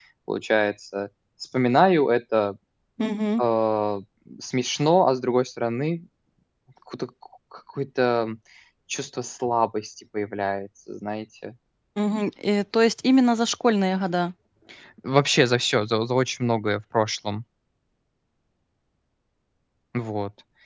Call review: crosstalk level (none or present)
none